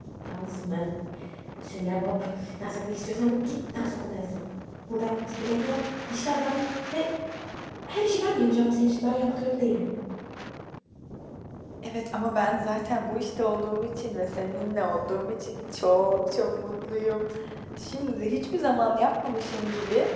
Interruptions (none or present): none